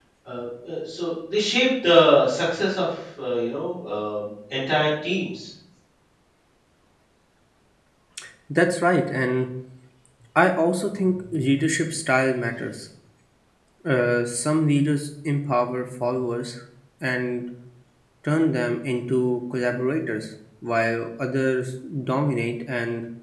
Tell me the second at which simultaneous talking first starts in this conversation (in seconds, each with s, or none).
none